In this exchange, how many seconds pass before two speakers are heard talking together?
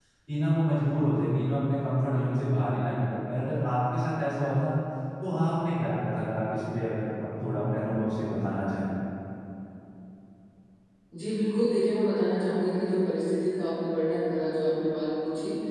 none

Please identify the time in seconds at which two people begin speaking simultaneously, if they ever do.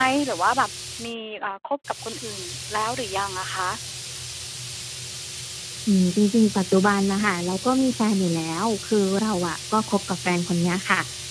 none

